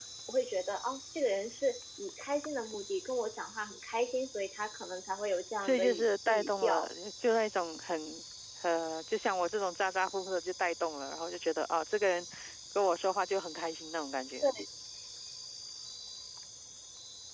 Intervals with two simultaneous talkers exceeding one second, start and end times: 5.6-6.9

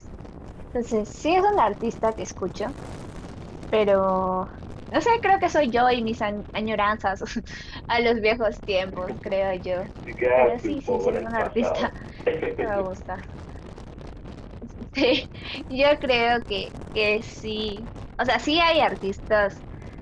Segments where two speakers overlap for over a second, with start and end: 10.4-11.9

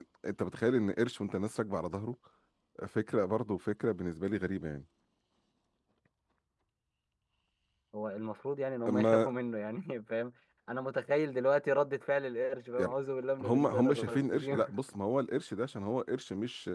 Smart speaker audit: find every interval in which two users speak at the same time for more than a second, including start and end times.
13.4-14.6

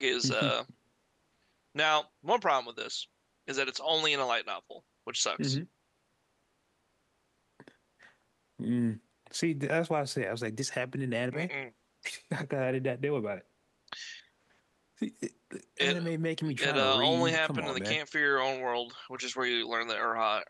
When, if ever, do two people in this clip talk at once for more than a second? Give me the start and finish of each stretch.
16.6-18.0

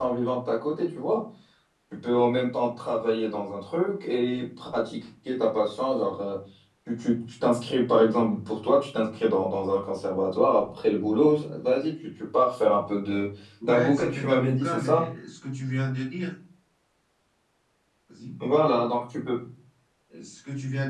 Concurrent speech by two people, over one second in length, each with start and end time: 13.6-15.0

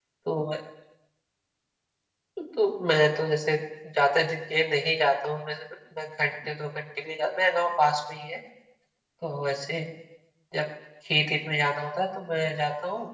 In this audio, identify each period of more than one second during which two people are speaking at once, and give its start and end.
none

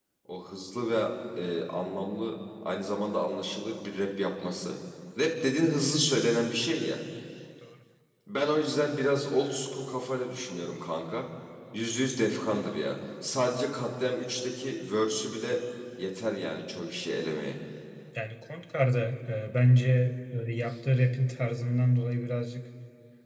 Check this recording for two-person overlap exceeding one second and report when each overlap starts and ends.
none

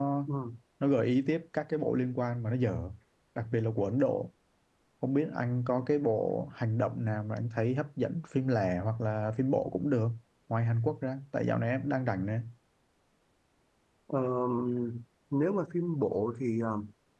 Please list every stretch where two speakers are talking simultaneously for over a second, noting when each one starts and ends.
none

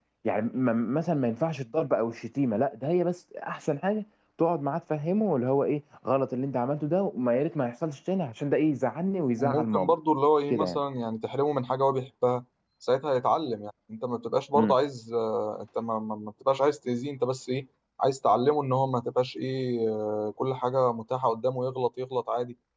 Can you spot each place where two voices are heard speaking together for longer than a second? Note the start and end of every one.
none

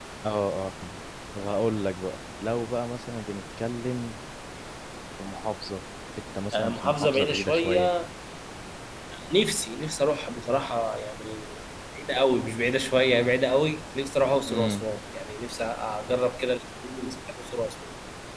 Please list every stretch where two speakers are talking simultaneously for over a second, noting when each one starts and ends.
6.5-7.9

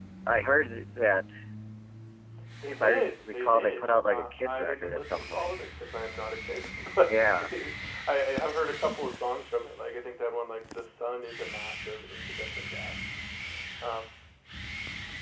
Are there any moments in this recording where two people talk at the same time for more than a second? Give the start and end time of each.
2.7-5.5

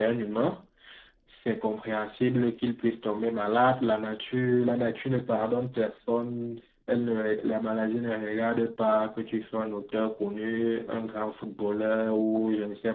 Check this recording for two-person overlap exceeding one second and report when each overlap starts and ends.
none

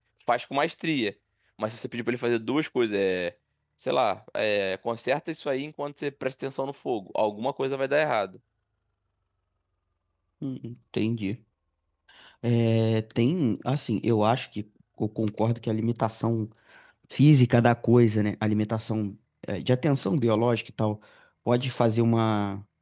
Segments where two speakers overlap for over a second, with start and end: none

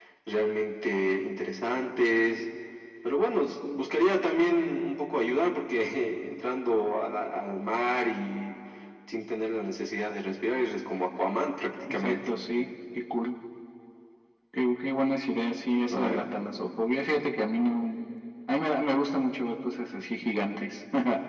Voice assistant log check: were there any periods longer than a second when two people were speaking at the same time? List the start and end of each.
none

